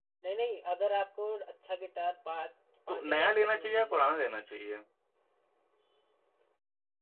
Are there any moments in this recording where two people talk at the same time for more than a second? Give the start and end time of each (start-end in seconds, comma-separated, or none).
2.9-4.2